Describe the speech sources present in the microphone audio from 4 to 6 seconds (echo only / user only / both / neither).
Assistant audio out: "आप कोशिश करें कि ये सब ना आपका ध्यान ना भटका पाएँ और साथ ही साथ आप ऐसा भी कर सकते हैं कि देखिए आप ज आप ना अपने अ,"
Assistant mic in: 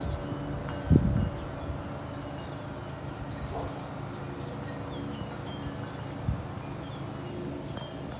neither